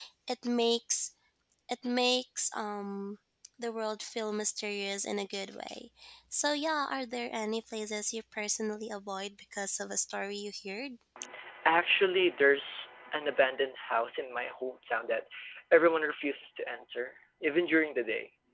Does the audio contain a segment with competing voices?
No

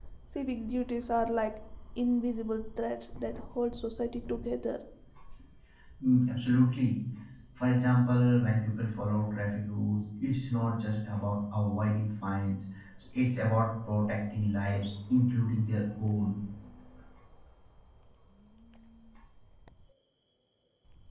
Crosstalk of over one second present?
No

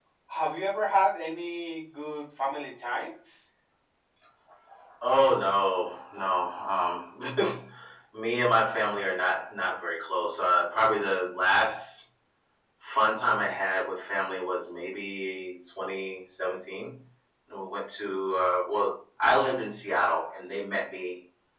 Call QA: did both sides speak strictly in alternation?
Yes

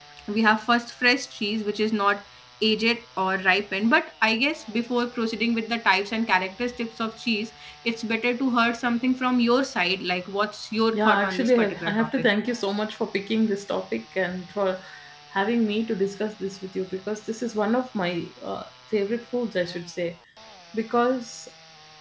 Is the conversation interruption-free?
No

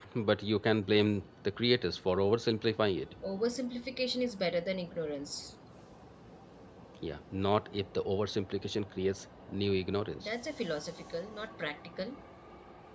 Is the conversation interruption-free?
Yes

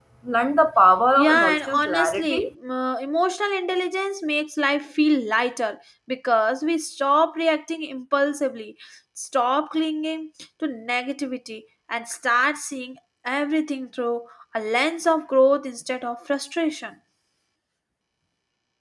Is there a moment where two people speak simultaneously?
Yes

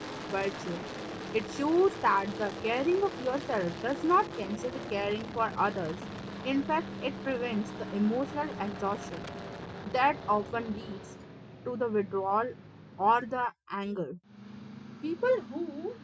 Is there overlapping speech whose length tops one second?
No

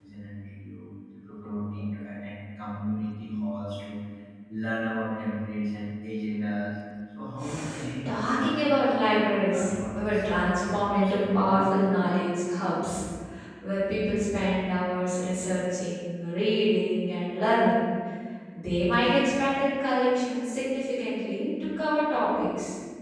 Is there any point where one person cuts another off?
Yes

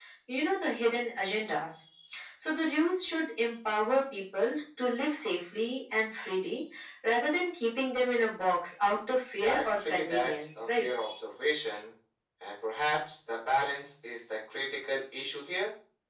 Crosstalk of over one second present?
Yes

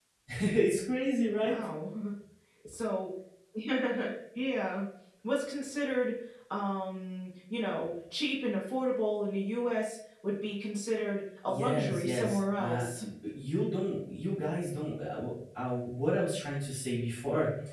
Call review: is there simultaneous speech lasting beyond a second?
Yes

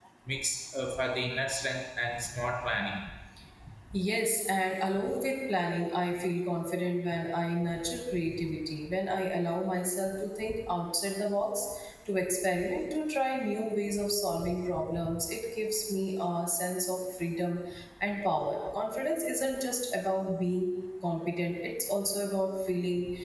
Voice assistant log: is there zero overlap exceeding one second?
Yes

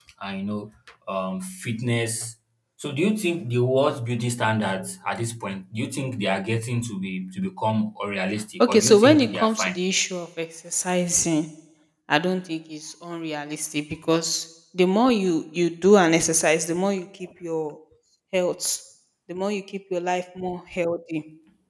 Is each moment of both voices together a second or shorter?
No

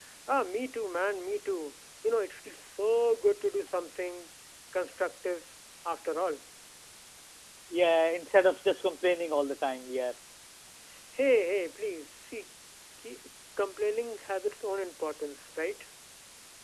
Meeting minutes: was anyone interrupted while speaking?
No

